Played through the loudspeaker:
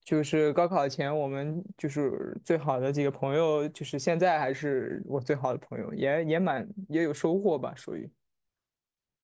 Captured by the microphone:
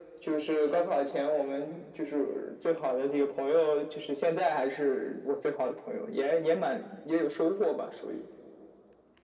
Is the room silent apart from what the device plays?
Yes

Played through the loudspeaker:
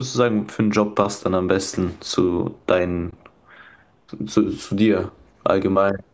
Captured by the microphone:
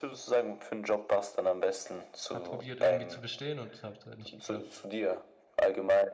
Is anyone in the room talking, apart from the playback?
Yes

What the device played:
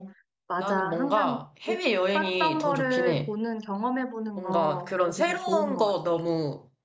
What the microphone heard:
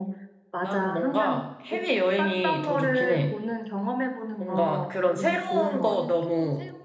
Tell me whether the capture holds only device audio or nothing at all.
No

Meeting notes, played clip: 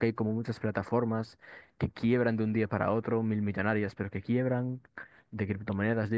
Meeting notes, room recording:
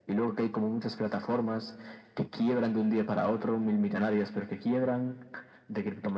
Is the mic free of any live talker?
Yes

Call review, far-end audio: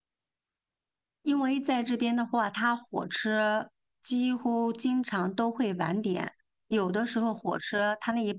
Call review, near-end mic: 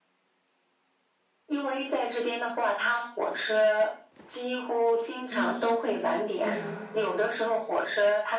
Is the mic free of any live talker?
No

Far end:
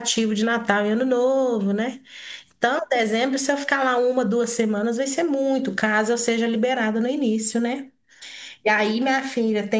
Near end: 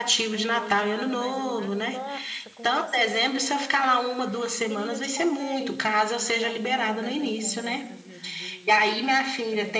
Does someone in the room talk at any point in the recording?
Yes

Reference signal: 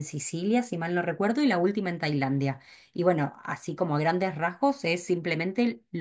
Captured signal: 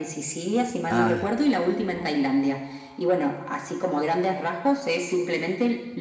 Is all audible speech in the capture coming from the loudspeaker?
No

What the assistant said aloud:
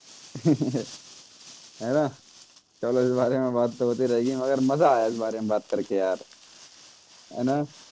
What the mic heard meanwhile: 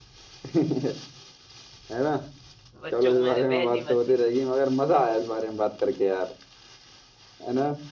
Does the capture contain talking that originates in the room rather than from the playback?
Yes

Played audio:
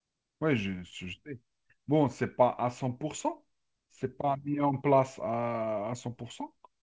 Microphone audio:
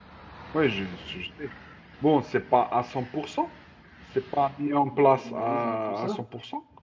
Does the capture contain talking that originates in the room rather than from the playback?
Yes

